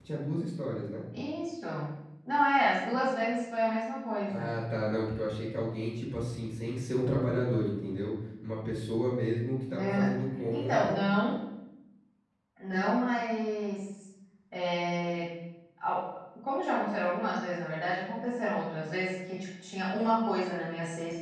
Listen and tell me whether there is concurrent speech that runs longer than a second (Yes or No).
No